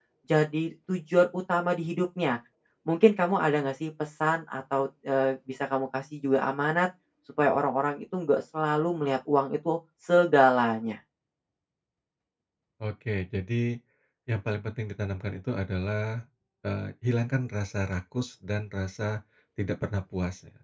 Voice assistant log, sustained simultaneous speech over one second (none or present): none